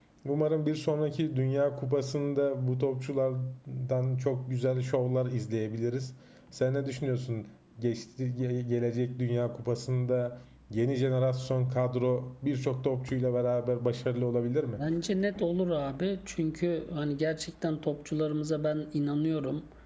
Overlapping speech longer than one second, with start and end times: none

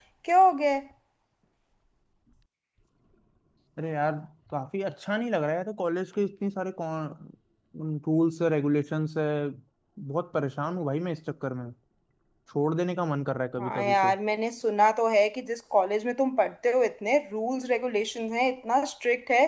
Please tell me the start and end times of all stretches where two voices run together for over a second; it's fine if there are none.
none

